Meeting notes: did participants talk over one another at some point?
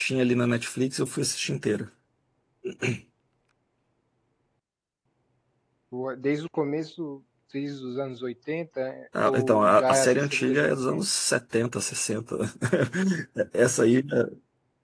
Yes, from 9.2 s

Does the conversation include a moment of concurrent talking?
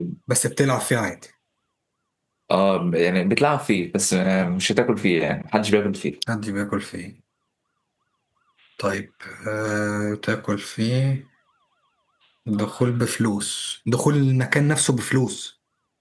No

